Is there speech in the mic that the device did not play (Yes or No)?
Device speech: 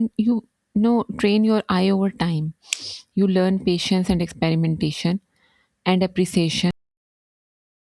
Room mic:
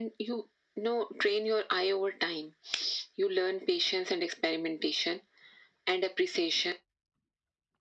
No